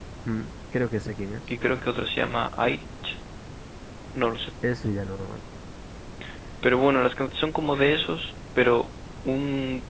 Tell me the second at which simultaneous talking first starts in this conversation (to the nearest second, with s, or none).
none